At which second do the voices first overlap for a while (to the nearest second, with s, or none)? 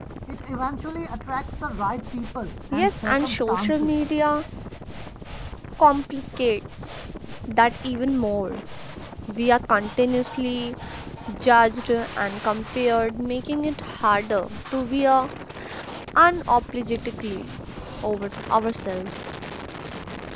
3 s